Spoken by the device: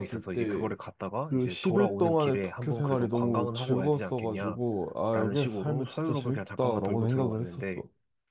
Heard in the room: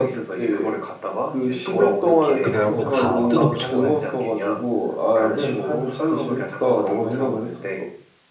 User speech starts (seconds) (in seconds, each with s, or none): 2.4 s